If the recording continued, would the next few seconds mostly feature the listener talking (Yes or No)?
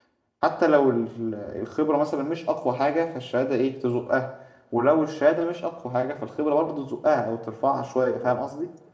Yes